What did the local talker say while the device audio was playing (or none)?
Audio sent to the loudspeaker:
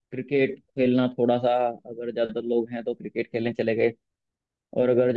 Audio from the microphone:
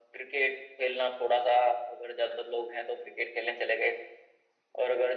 none